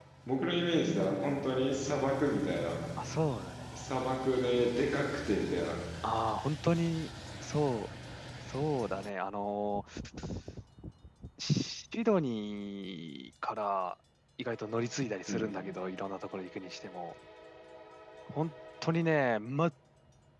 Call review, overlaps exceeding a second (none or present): none